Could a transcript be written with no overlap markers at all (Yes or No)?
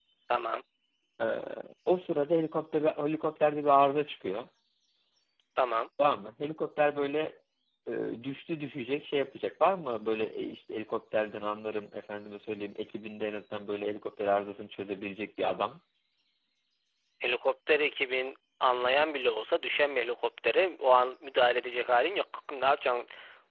Yes